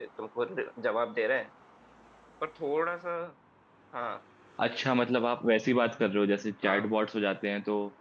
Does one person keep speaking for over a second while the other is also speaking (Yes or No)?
No